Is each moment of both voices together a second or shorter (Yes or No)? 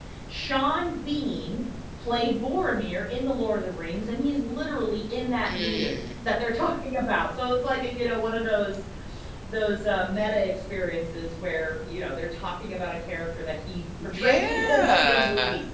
No